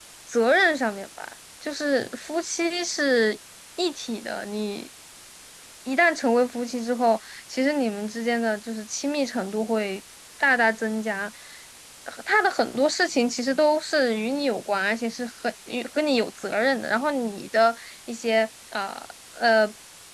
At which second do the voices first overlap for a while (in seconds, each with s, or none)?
none